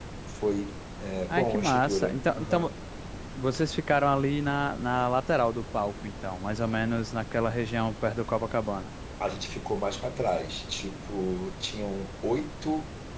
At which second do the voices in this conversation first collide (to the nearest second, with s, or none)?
1 s